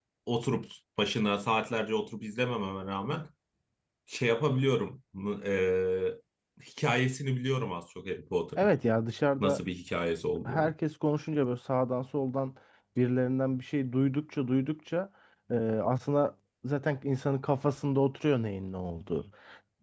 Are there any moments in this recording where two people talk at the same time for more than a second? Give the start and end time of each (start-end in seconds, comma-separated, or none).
none